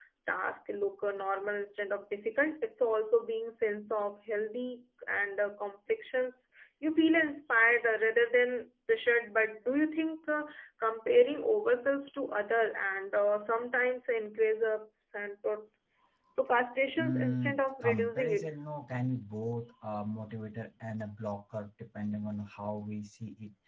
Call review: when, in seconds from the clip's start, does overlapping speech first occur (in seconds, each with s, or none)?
17.0 s